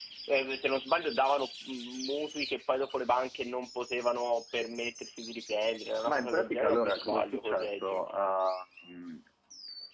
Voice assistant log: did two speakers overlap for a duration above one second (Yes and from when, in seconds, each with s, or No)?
Yes, from 6.0 s